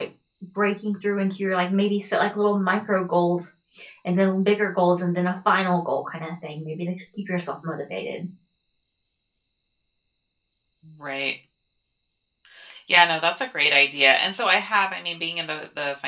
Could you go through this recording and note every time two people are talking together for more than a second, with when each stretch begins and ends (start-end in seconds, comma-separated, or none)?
none